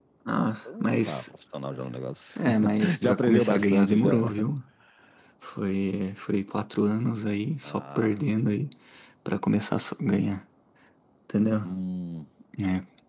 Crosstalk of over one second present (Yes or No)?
Yes